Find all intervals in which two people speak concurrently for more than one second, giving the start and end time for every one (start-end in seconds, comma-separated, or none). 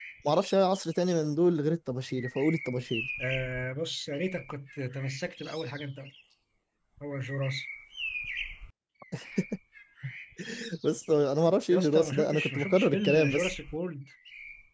11.7-13.5